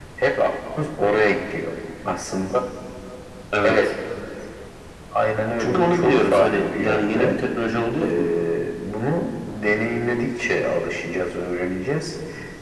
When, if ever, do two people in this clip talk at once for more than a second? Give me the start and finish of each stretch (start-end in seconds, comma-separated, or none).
5.6-7.4